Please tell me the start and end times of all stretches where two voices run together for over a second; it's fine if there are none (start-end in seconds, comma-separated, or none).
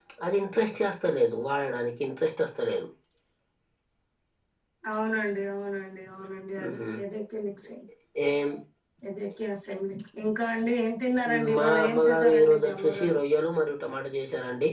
11.3-13.2